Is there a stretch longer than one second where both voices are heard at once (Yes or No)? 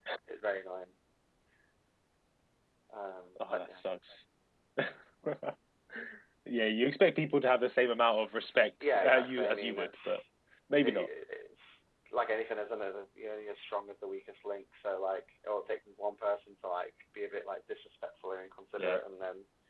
Yes